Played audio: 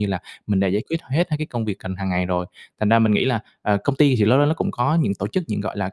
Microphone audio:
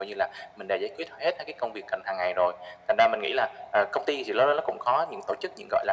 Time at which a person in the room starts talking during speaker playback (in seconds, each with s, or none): none